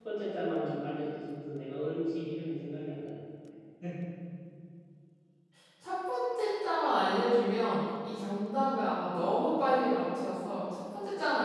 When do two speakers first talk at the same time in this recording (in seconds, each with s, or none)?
none